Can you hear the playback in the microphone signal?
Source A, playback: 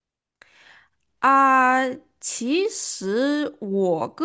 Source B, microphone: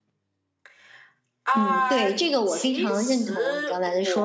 Yes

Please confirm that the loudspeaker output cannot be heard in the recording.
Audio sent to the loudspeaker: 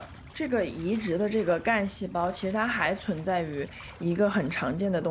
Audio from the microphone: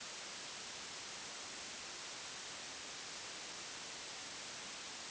Yes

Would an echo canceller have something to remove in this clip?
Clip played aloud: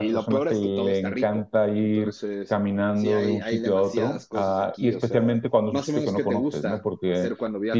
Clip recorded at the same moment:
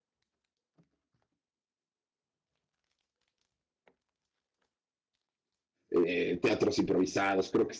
No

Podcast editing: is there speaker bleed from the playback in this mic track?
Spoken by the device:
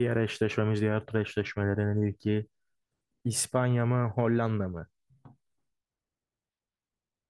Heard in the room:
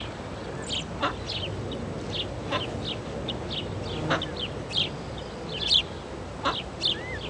No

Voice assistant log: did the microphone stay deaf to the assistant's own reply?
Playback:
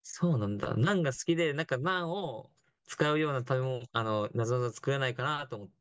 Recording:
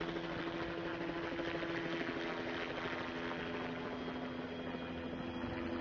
Yes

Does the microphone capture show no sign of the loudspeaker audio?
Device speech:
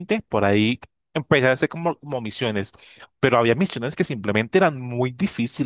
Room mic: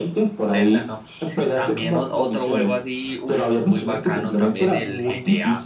No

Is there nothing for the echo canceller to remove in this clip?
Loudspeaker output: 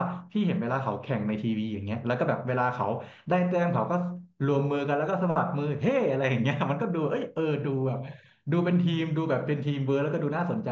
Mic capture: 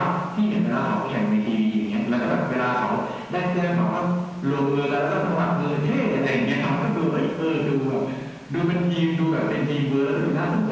No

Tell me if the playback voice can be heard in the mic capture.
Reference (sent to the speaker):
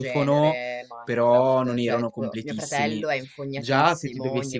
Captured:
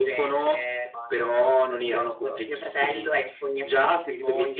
Yes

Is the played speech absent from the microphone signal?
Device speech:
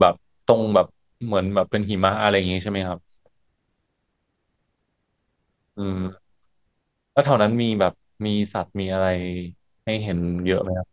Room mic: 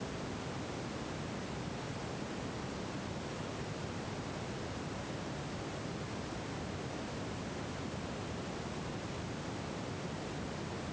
Yes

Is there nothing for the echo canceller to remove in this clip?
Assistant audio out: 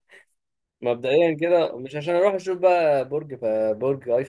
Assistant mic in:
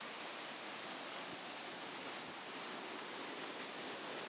Yes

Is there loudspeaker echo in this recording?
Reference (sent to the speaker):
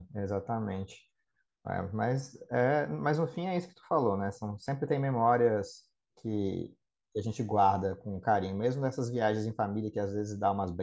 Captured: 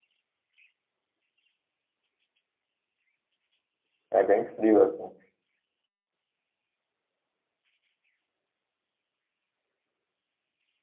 No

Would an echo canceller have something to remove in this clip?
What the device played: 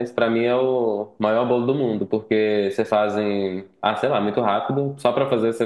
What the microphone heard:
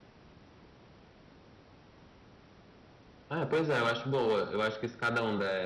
No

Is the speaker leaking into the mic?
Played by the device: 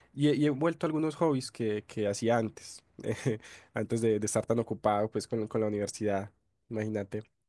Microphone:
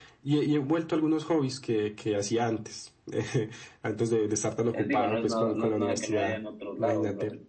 Yes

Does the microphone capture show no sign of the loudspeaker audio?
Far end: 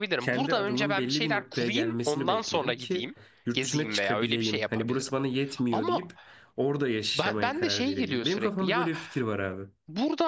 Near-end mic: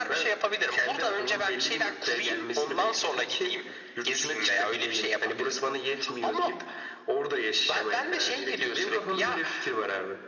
No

